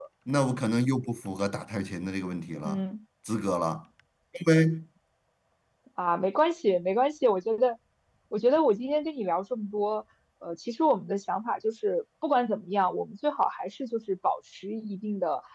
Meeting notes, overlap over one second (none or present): none